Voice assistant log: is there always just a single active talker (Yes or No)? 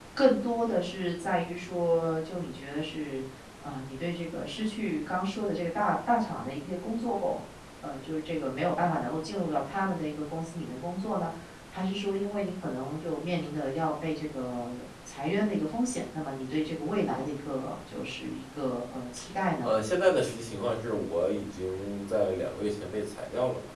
Yes